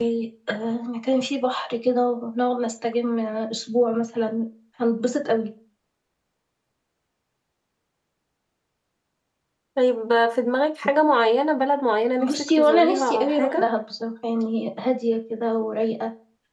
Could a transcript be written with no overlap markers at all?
No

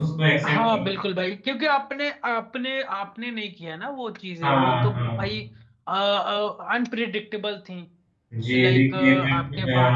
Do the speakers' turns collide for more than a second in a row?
Yes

